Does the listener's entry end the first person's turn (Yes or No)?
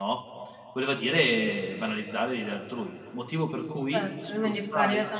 Yes